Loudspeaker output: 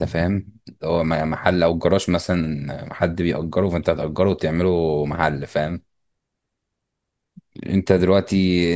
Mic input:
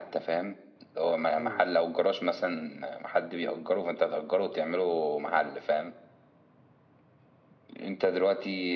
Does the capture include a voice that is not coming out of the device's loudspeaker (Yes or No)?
Yes